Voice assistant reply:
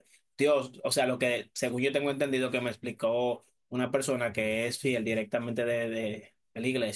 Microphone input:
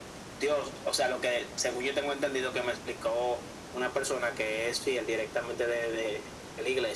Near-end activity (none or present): none